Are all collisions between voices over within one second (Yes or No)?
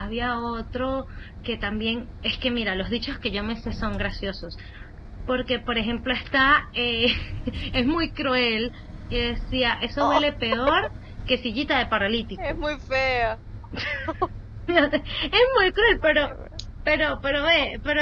Yes